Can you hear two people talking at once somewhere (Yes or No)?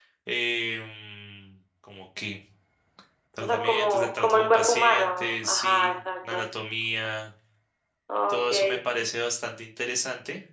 Yes